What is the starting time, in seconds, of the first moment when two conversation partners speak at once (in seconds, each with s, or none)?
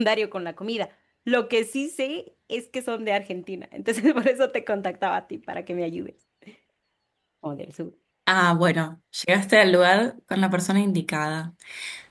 none